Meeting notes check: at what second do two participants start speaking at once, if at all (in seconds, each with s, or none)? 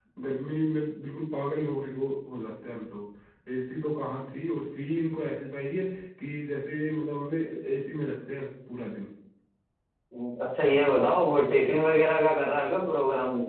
none